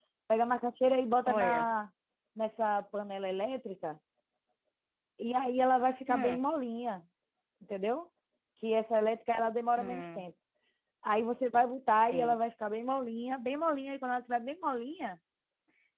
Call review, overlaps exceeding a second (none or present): none